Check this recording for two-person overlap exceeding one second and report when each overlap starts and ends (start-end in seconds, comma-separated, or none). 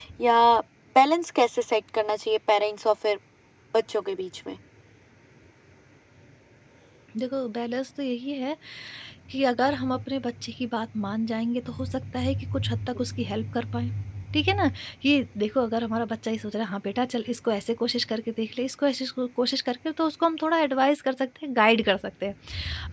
none